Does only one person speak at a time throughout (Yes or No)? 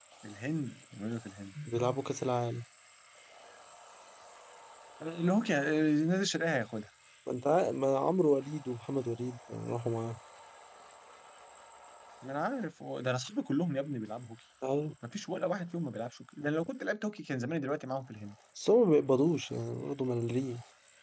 Yes